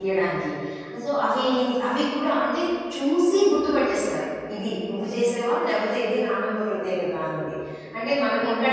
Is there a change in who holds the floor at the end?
Yes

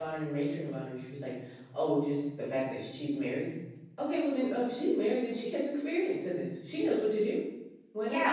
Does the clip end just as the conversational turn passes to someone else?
Yes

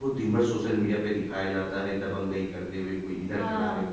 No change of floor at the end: No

